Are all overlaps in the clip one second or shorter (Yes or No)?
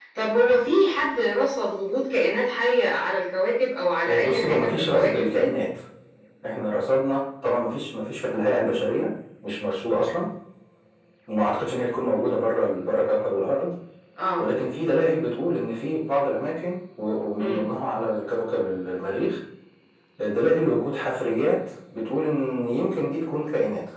No